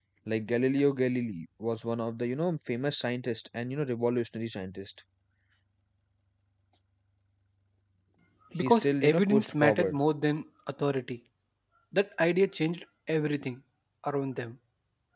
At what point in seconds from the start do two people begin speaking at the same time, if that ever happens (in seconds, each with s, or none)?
8.6 s